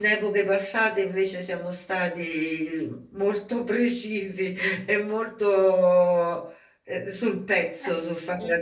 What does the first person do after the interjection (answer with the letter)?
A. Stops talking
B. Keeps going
A